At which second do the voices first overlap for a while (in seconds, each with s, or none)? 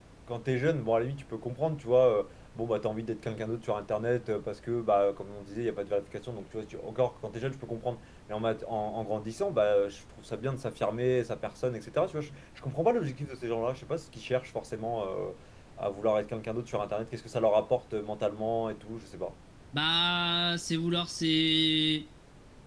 none